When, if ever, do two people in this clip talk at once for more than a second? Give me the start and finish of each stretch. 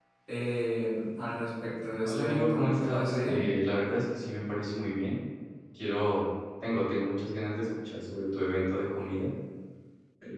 2.0-3.4

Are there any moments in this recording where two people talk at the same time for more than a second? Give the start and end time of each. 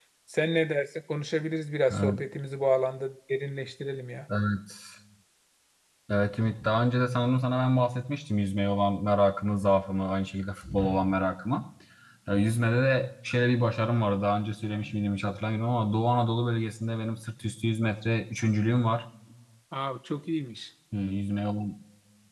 none

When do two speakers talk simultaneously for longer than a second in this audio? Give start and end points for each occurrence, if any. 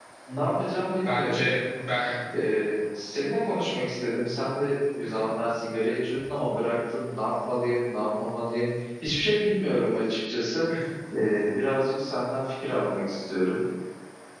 none

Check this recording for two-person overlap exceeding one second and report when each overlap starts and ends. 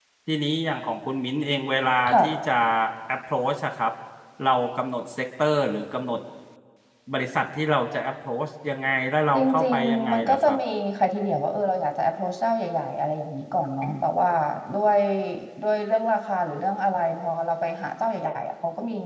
9.3-10.6

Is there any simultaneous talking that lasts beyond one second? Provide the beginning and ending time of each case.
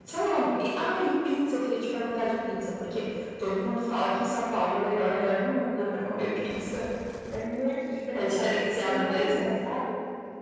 8.1-9.5

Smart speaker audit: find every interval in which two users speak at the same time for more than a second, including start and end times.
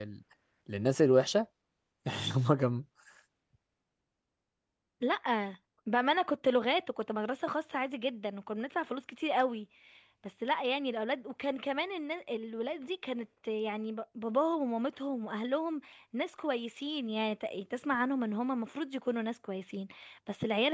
none

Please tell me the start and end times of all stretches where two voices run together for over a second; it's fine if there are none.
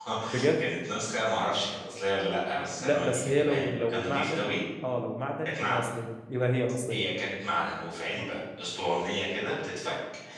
2.8-4.5

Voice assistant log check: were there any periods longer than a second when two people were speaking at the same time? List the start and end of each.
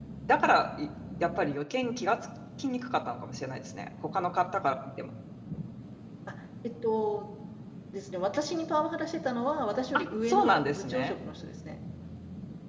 9.9-11.2

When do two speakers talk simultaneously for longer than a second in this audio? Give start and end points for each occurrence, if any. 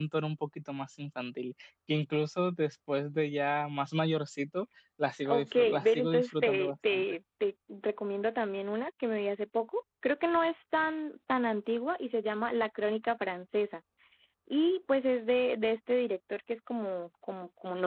5.3-7.0

